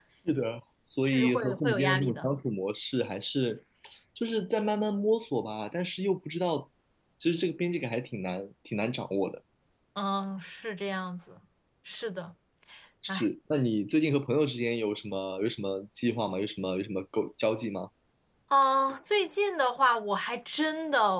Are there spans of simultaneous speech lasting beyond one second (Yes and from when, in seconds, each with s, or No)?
Yes, from 1.1 s